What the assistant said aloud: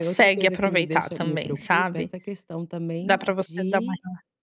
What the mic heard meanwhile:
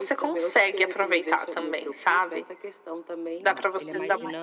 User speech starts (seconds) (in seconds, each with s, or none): 3.4 s